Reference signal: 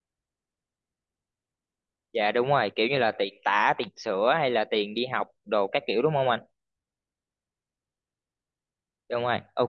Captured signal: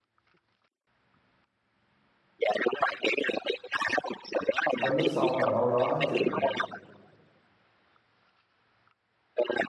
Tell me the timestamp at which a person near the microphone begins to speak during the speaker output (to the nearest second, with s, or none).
5 s